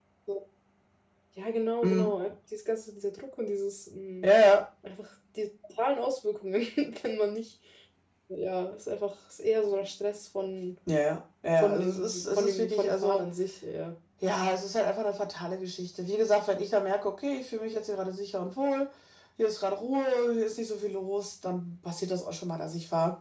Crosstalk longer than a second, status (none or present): present